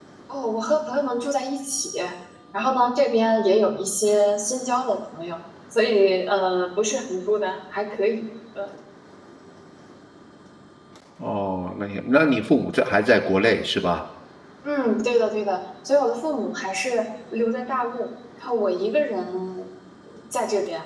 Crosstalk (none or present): none